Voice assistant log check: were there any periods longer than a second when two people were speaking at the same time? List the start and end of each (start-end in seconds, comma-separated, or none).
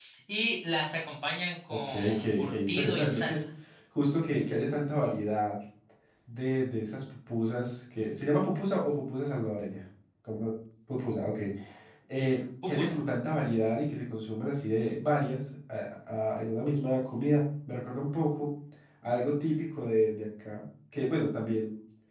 1.7-3.4